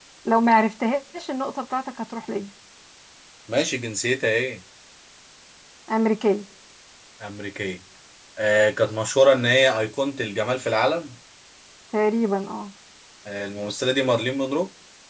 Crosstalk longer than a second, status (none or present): none